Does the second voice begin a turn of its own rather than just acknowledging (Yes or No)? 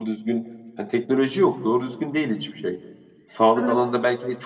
No